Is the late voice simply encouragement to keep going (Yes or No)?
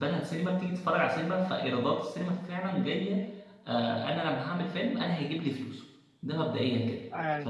Yes